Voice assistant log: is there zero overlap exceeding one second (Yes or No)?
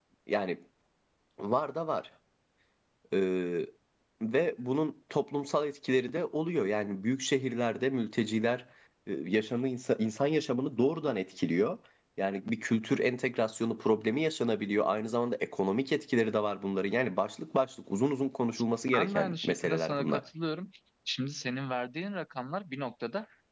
No